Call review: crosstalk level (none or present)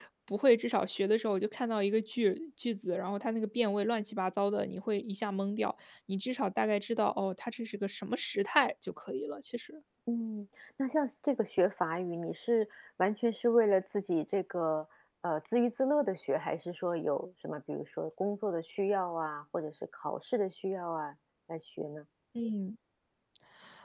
none